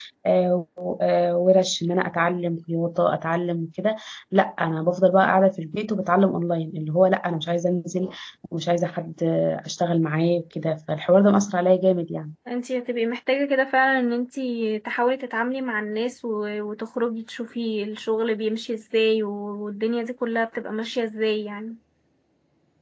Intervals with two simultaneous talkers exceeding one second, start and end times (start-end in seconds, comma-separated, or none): none